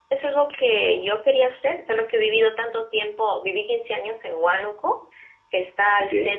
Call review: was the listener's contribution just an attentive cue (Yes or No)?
Yes